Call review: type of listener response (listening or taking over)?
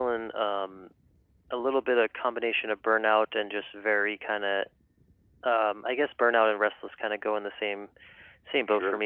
listening